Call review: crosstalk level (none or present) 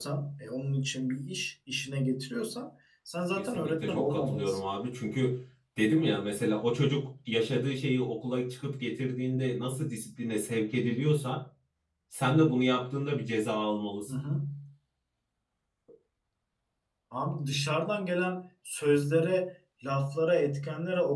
present